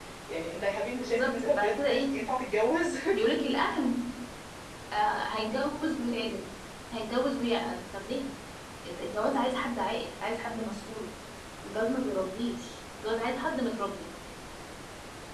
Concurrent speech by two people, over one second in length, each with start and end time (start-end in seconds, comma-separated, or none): 1.0-2.2